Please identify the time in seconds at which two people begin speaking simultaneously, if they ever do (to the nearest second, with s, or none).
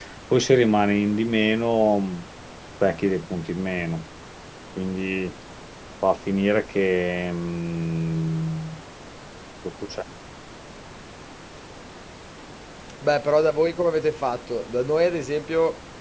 none